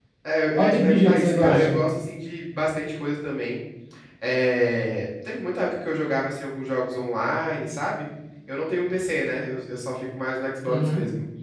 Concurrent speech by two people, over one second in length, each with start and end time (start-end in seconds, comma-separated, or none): 0.6-1.8